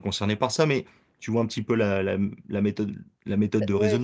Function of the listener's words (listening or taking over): taking over